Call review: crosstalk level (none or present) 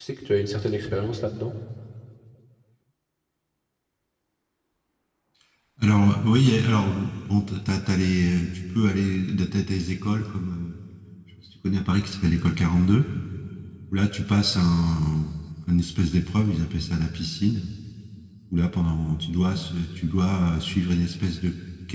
none